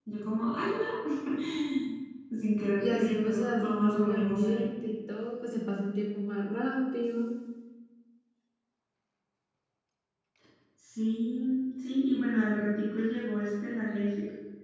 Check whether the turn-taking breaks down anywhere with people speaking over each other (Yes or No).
Yes